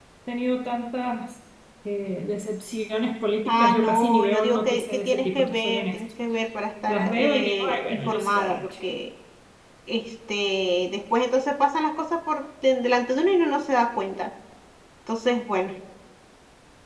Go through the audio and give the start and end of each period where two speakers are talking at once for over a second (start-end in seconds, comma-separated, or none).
3.5-6.0, 6.9-8.7